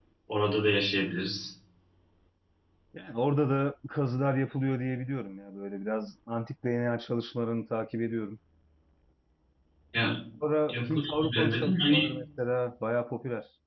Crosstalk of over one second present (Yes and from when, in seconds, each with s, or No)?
Yes, from 10.7 s